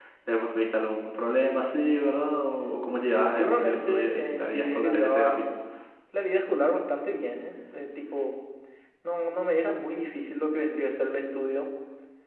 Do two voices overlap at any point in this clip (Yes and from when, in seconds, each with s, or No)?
Yes, from 3.3 s